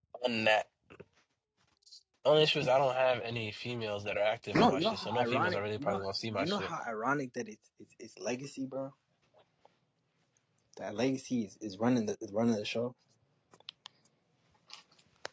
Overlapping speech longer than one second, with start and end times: 4.5-6.7

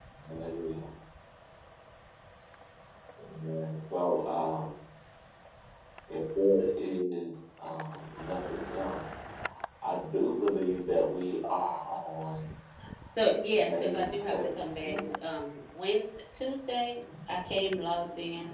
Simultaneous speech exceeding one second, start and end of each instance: 13.5-15.1

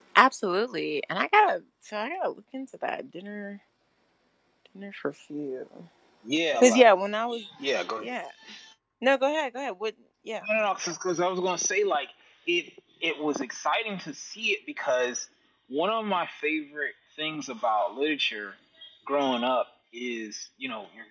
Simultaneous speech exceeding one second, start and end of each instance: none

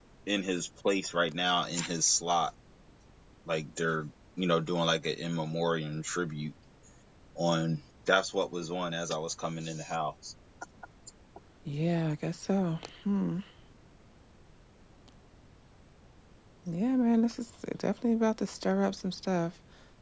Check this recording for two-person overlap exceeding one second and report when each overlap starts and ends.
none

